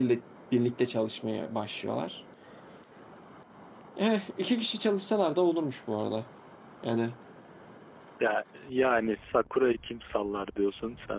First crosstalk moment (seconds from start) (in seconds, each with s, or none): none